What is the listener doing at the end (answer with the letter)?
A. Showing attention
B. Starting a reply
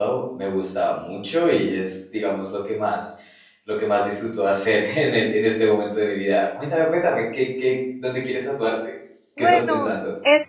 B